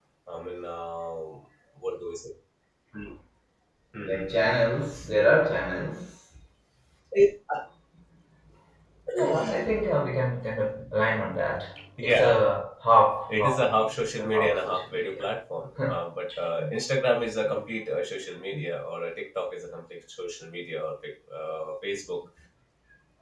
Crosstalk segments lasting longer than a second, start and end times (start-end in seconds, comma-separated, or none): 13.3-15.2